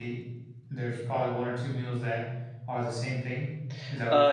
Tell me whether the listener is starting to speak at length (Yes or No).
Yes